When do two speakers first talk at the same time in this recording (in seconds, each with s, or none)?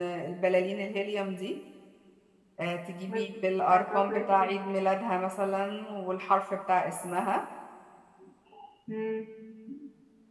3.1 s